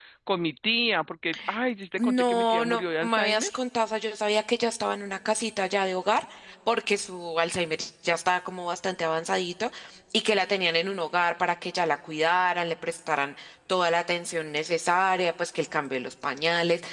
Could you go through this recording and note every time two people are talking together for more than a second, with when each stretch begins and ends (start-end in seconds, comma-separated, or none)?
2.0-3.5